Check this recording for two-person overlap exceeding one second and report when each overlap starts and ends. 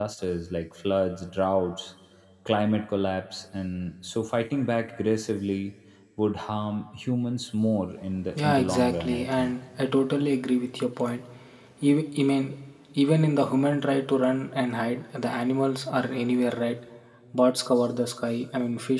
8.4-9.6

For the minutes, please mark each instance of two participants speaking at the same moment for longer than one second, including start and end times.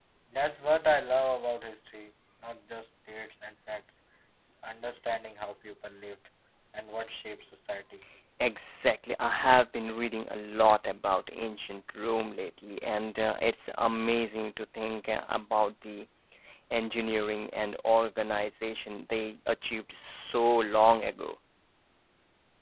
none

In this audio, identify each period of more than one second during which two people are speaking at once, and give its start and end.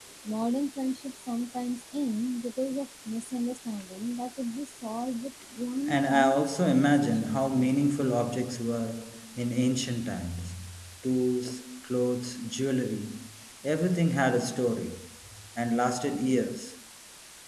5.9-7.7

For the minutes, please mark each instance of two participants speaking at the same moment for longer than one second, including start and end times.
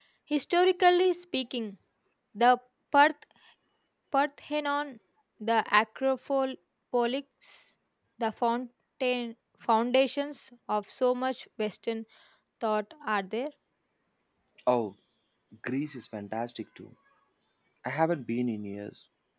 none

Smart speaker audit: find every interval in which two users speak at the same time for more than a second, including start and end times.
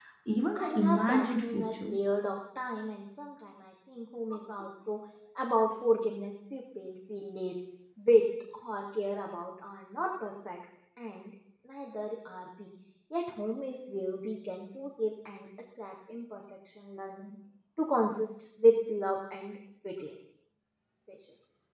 0.6-1.9

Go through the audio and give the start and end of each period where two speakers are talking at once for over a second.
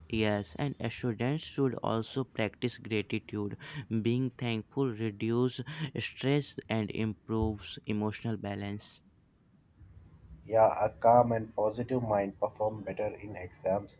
none

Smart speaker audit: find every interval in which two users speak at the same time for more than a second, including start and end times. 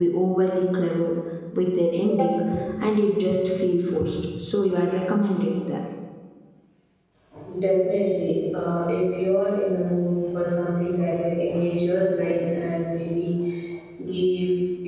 none

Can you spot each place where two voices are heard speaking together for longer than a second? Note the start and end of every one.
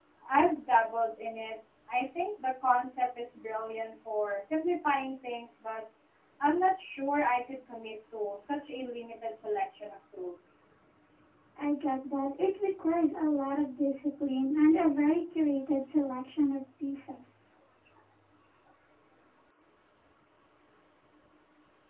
none

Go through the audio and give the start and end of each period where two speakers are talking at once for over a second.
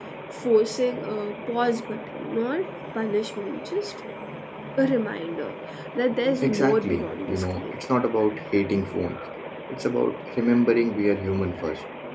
6.4-7.8

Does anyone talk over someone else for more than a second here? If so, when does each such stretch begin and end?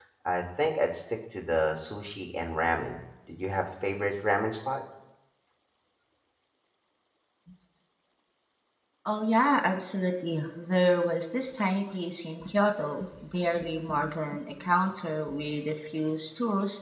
none

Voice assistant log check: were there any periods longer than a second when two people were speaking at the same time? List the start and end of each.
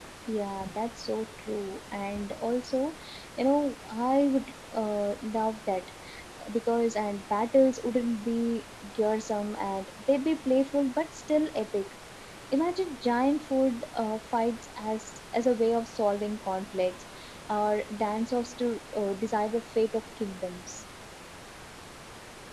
none

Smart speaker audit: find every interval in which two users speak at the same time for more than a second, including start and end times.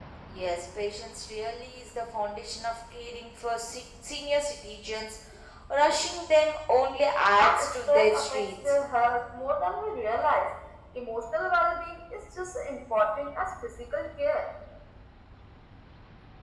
7.4-8.8

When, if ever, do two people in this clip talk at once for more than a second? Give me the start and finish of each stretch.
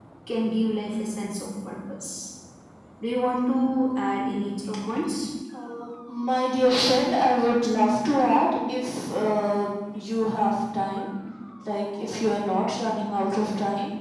none

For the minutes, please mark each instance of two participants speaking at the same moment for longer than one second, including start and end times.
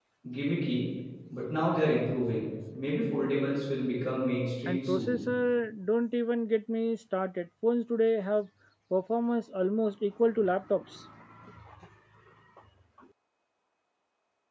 none

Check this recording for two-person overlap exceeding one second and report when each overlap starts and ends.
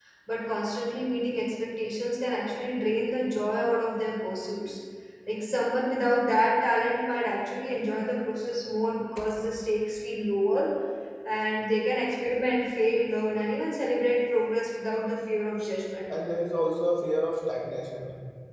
none

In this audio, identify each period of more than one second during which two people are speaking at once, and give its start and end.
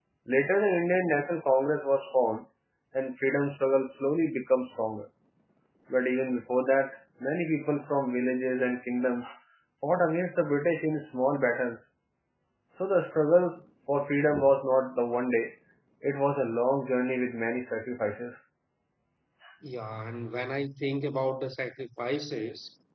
none

